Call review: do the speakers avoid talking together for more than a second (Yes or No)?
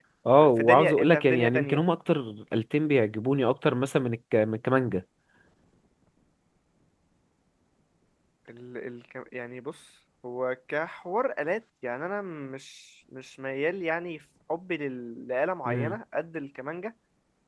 No